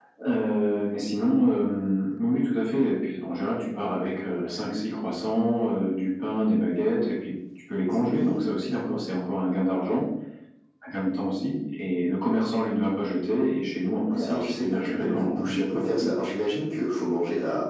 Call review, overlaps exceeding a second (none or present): present